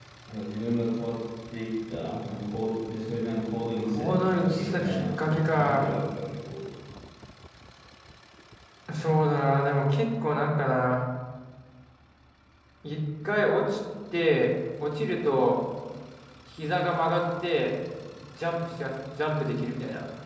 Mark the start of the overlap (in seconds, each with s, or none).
3.8 s